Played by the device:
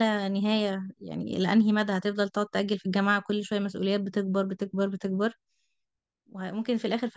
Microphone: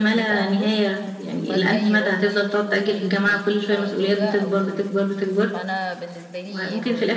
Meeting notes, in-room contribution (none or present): present